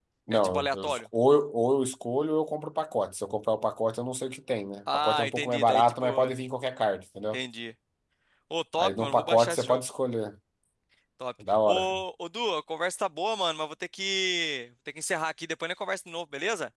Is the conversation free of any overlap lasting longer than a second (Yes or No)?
No